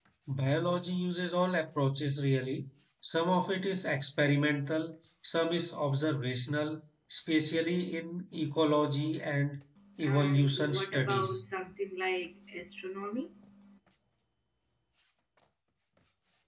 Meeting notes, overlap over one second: present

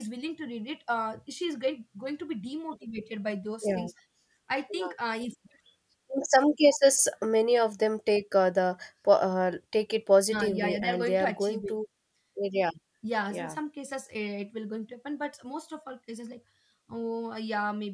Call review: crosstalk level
present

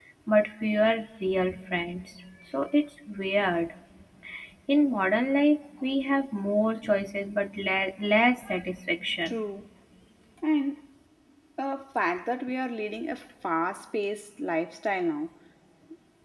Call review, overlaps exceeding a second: none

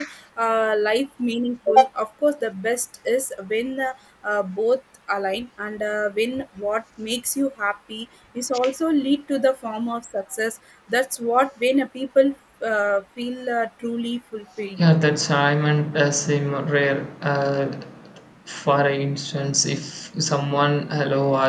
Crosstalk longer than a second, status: none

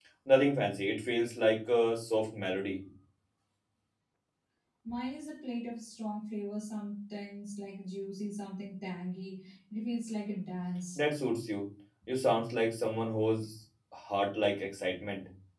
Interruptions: none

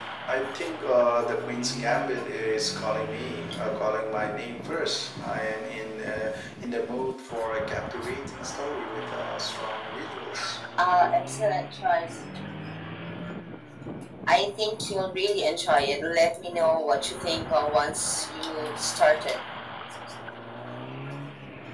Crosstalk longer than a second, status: none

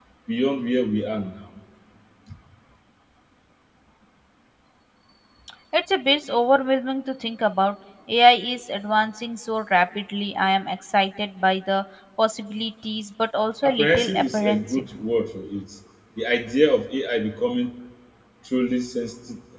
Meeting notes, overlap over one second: present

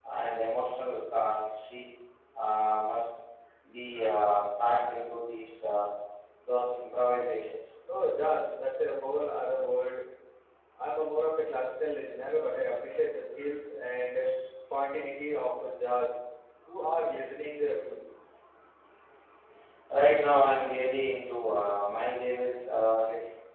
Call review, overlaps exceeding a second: none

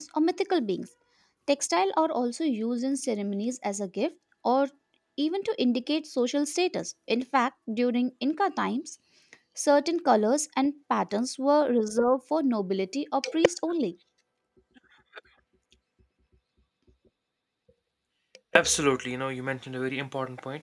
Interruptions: none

